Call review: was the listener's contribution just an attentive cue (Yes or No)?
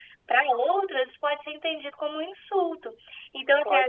Yes